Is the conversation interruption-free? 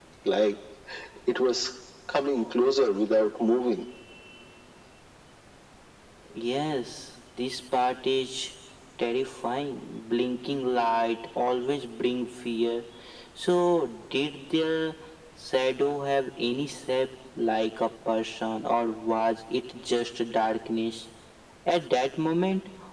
Yes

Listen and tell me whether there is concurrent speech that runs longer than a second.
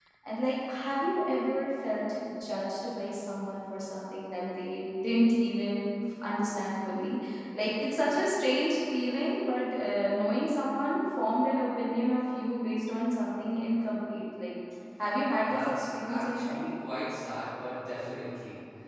Yes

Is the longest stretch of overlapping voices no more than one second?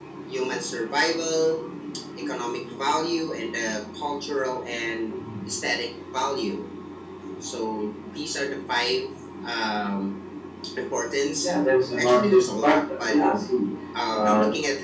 No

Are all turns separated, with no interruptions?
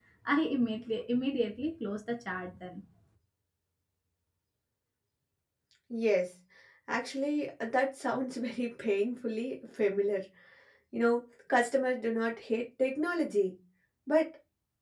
Yes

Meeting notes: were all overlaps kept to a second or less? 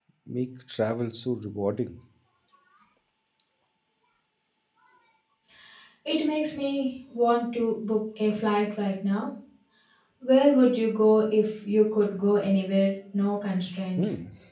Yes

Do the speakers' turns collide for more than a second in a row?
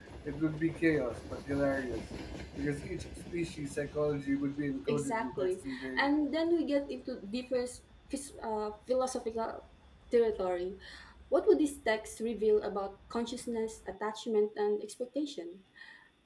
Yes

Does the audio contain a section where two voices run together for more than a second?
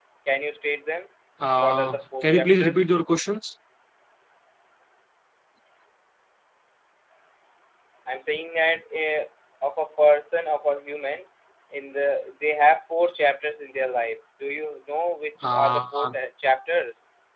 Yes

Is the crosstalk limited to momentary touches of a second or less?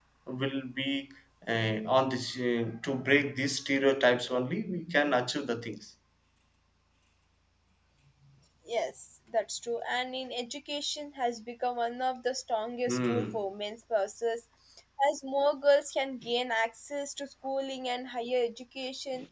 Yes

